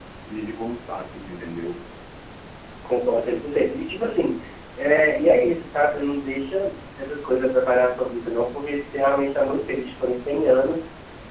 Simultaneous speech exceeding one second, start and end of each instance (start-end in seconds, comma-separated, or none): none